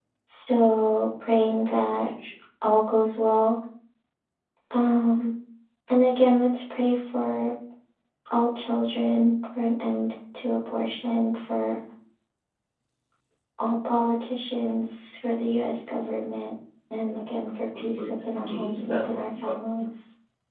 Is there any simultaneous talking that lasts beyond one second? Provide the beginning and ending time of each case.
17.8-19.5

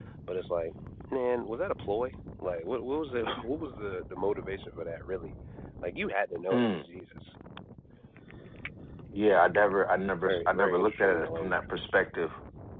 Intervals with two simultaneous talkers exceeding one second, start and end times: 10.2-11.6

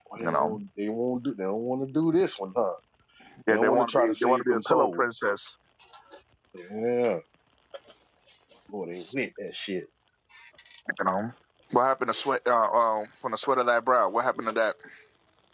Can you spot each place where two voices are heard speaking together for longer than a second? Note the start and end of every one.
3.5-5.0

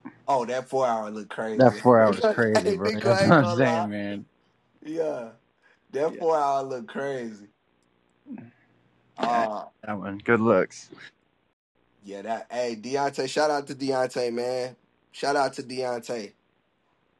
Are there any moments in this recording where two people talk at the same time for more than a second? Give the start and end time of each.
1.6-3.9

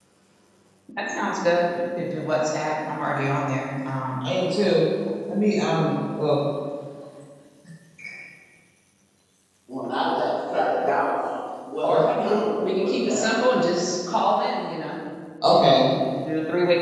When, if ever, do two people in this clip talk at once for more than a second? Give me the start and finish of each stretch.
11.8-13.3

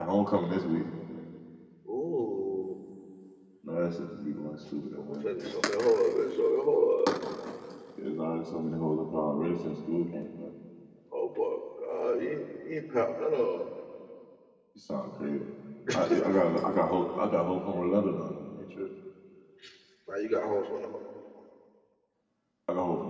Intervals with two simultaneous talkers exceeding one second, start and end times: none

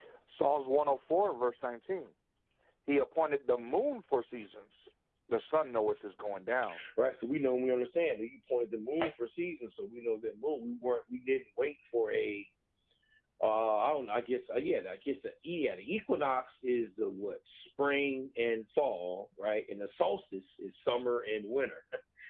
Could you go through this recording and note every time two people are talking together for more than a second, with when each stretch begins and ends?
none

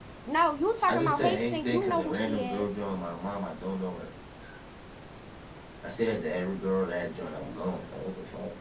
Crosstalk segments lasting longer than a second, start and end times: 0.9-2.6

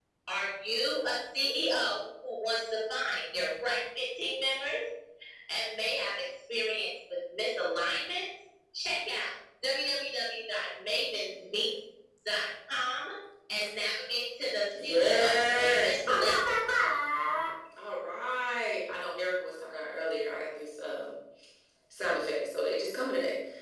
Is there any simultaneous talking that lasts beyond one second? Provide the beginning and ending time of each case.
14.8-16.4

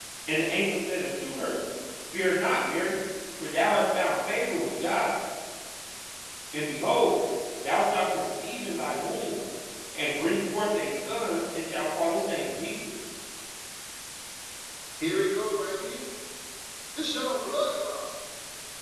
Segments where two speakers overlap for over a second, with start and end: none

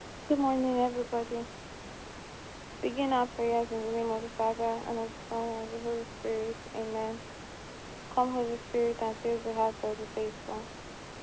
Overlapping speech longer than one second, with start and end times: none

